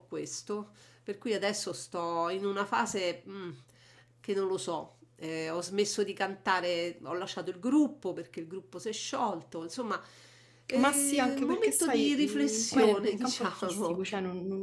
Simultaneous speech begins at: 10.8 s

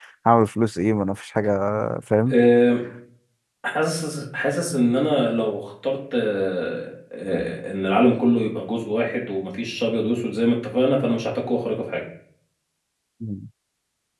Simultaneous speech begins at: none

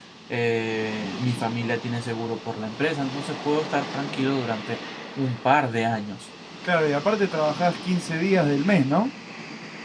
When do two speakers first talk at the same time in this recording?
none

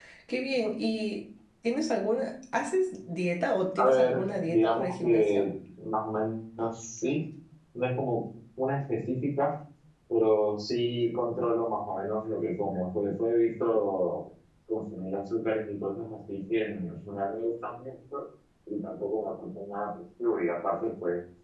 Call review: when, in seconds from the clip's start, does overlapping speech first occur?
3.8 s

